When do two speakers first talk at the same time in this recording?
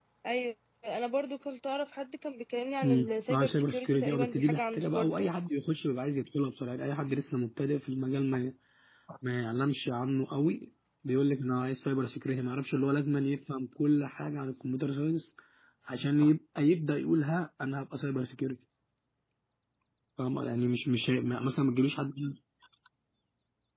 2.8 s

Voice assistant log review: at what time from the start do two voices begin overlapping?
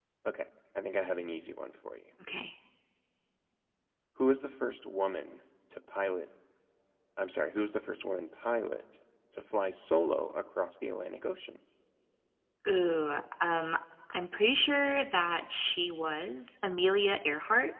none

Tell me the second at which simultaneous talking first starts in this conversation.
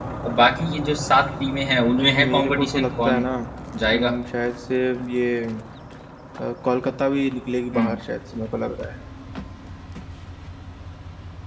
2.0 s

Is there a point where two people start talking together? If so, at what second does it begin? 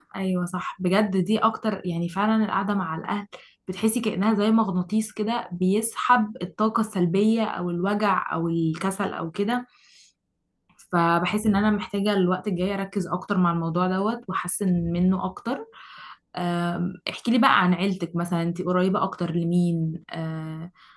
none

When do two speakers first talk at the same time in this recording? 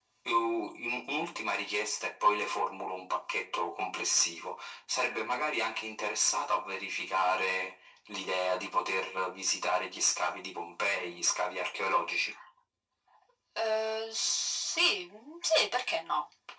none

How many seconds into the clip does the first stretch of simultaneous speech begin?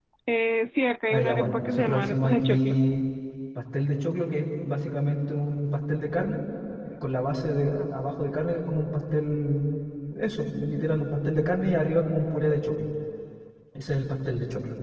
1.1 s

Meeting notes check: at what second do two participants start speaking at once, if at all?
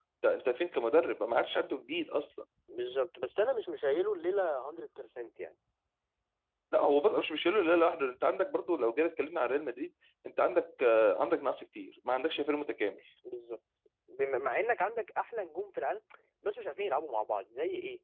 none

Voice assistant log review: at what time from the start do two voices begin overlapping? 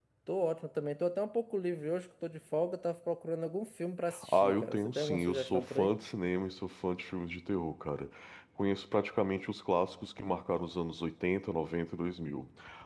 4.2 s

